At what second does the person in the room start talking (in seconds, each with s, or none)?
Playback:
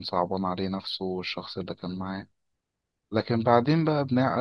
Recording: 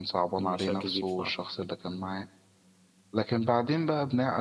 0.4 s